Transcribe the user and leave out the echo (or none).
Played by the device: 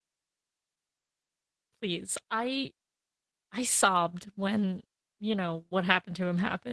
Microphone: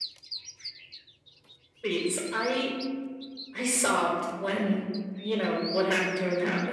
none